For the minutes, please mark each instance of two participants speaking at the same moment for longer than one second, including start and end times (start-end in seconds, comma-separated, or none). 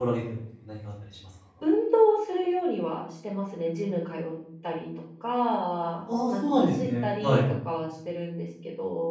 6.1-7.4